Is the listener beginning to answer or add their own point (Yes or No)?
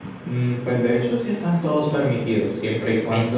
No